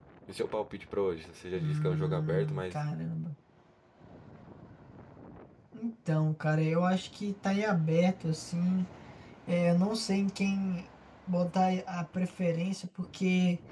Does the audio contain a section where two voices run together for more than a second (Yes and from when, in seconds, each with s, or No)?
Yes, from 1.6 s